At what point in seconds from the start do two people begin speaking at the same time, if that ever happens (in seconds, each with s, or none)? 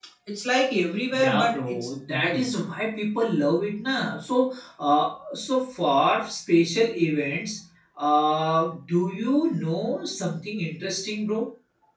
1.1 s